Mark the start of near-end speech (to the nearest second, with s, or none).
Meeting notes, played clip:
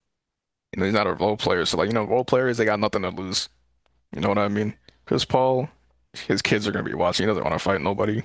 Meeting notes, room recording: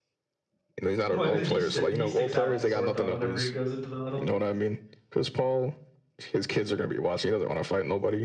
1 s